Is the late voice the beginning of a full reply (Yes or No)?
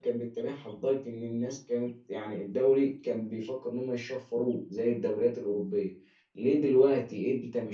No